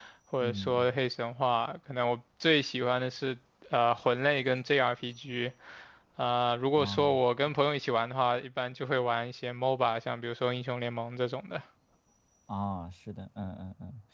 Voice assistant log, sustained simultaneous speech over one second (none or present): none